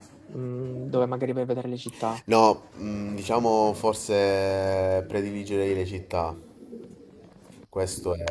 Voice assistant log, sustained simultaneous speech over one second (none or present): none